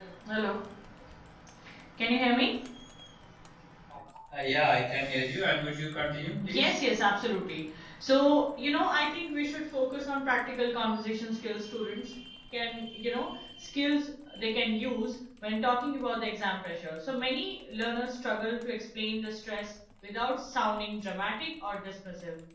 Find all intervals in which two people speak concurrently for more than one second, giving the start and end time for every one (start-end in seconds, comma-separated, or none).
none